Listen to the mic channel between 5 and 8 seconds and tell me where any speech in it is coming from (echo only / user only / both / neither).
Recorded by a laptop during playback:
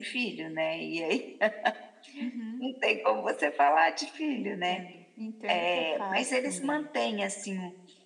echo only